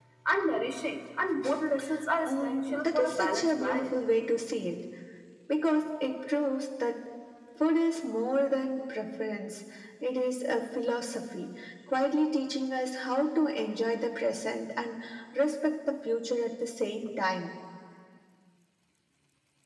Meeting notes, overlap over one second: present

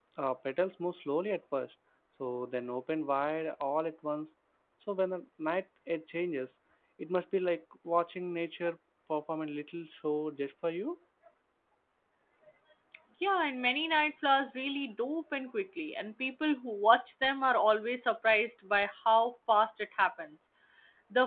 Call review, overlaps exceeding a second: none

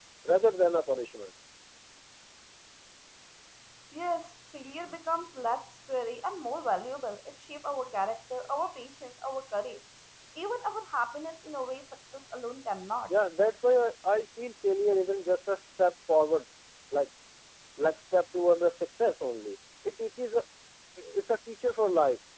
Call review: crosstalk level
none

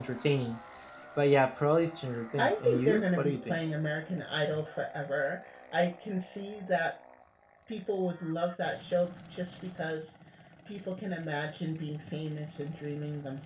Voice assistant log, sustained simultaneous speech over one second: present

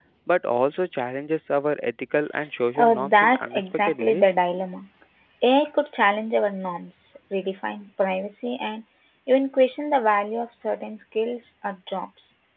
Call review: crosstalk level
present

